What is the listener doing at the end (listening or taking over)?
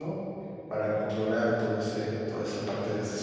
taking over